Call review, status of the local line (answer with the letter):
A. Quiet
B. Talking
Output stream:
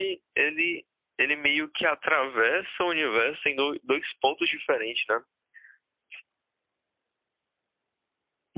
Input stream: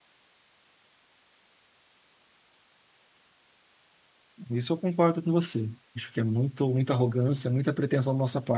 B